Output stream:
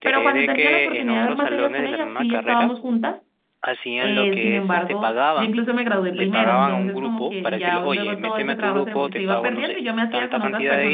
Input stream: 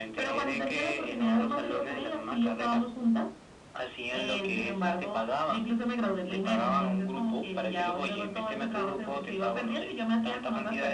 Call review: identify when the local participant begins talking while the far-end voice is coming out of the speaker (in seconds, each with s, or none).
none